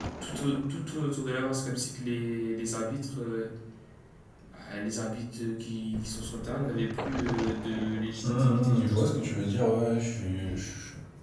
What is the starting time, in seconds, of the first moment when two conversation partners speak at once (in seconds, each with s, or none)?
8.2 s